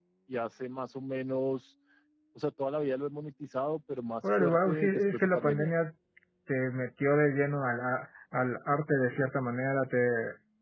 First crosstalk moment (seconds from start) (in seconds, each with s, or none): 4.2 s